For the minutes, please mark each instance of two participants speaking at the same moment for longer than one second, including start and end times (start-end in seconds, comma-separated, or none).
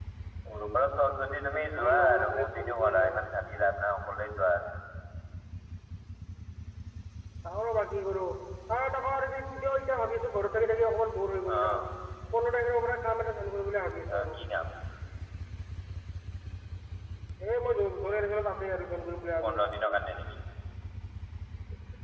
1.7-3.1